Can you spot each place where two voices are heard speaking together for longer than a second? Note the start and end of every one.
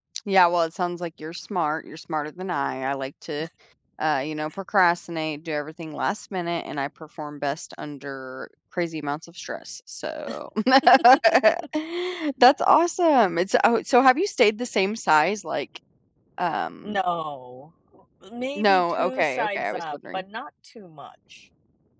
18.6-20.2

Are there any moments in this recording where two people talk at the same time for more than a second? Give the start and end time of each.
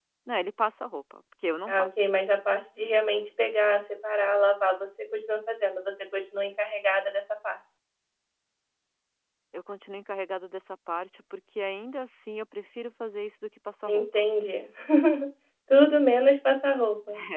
none

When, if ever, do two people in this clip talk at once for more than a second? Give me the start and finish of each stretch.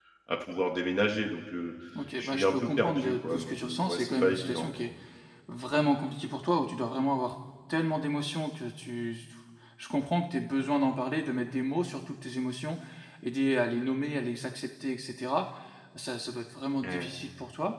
2.2-4.7

